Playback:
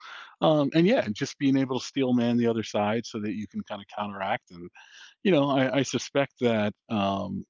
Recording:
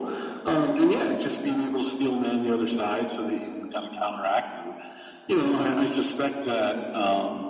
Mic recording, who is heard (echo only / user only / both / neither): echo only